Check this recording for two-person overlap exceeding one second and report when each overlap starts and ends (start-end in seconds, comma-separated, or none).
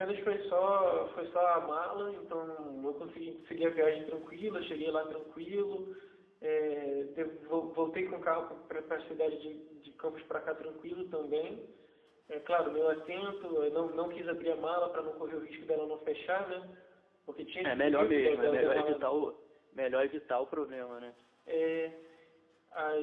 17.6-19.1